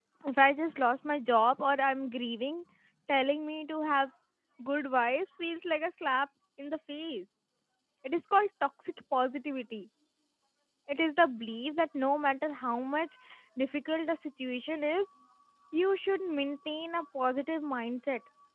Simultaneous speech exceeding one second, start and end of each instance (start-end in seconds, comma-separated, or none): none